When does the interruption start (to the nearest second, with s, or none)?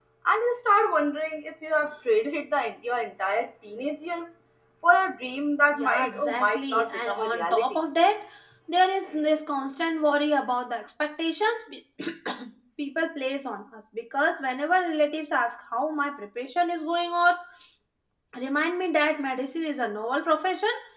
6 s